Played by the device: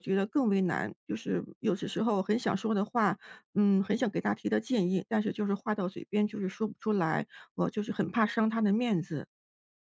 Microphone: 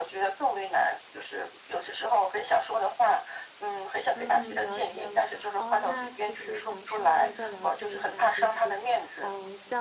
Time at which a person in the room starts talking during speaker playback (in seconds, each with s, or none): 4.2 s